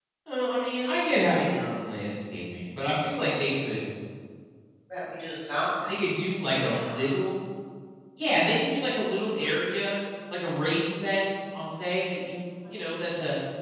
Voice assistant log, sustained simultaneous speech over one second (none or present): none